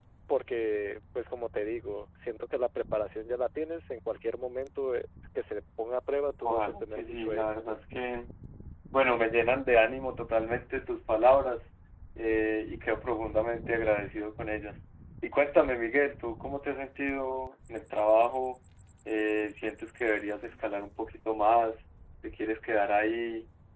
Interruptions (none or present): present